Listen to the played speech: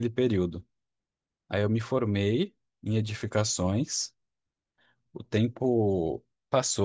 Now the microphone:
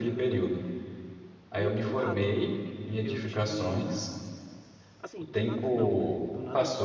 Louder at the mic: echo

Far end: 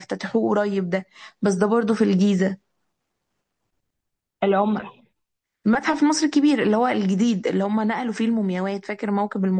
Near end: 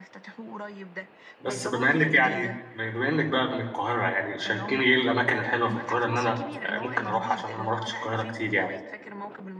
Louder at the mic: user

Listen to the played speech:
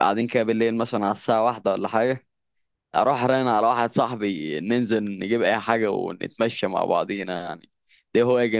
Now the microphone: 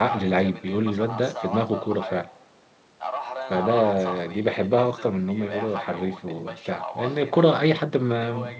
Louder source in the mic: user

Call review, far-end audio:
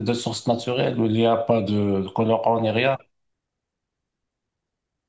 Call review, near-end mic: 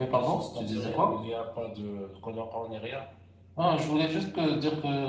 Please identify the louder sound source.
user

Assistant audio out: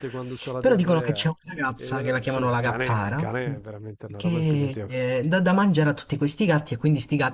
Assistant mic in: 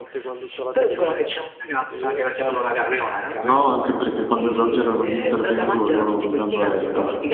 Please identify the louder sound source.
user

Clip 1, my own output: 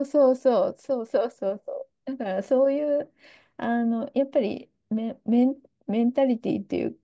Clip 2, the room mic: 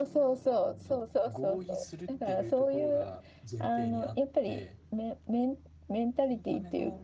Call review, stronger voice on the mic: echo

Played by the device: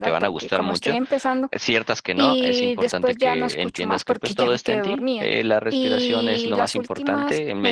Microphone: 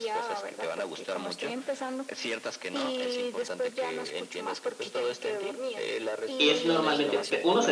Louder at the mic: user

